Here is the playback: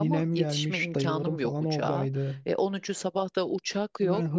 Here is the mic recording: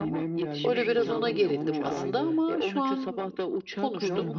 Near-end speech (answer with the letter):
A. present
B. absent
A